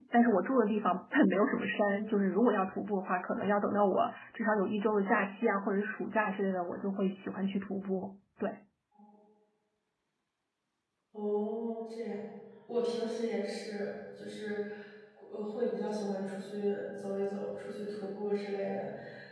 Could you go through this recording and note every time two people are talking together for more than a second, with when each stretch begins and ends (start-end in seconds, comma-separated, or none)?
none